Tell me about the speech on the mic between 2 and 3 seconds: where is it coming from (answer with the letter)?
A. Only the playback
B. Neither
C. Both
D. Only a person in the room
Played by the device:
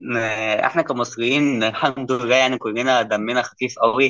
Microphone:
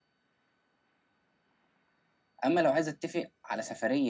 D